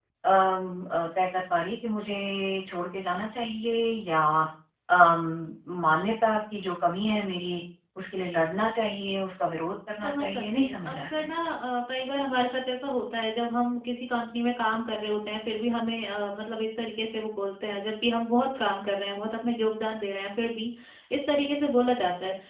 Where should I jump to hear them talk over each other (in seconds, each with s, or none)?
10.0 s